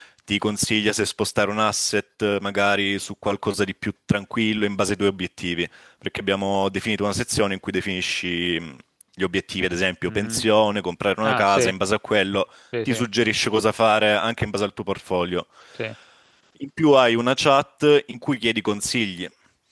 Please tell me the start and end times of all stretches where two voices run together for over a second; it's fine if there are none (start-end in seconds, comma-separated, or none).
none